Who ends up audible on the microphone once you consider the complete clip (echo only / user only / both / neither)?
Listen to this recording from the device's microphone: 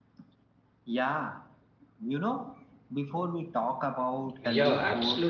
both